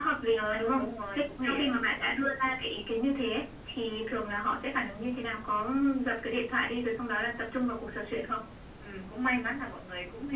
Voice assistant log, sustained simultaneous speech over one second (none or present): present